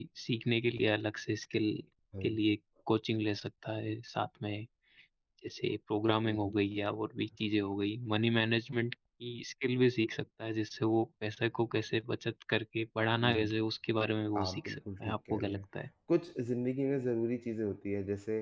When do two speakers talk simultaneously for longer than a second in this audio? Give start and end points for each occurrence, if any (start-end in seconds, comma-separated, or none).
14.4-15.6